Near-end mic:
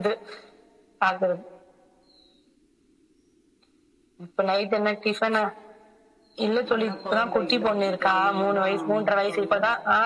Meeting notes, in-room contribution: present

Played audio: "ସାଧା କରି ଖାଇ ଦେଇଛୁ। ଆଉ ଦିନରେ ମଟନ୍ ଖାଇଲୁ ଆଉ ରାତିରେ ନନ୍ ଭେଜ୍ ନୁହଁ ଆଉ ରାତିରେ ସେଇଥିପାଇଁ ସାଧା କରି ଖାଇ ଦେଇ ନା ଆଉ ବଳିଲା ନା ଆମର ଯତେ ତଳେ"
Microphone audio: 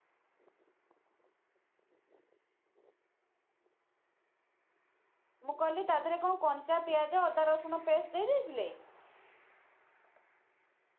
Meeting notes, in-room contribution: present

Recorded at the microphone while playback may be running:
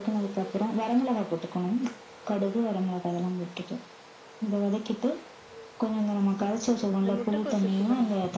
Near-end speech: present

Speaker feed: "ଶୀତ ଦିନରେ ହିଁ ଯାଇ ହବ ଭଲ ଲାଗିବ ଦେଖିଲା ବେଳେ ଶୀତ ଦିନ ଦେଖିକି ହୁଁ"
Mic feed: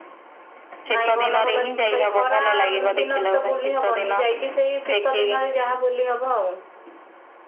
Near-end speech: present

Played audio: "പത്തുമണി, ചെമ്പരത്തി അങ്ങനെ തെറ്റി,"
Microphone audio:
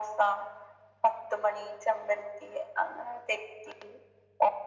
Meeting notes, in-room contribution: none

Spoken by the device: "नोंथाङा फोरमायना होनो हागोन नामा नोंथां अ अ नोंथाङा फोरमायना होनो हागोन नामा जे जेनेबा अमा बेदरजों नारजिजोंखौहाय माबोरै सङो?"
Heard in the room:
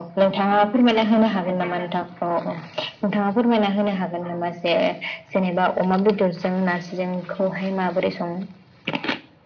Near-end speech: none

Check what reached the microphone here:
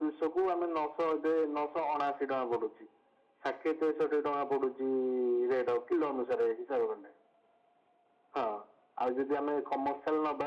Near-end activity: none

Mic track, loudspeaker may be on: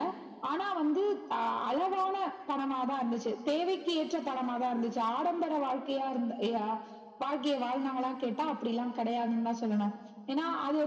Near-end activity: none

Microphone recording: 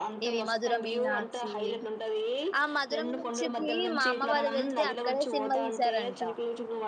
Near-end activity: present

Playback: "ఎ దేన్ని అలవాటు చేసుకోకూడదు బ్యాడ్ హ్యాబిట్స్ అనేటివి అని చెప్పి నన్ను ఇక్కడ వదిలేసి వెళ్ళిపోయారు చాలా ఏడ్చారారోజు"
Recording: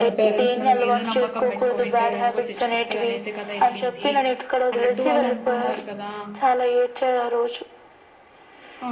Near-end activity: present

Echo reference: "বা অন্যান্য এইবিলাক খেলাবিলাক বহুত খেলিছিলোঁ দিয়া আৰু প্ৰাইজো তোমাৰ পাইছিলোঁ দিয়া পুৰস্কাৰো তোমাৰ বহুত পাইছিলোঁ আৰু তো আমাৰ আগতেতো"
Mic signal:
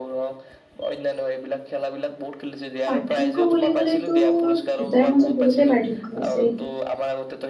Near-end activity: present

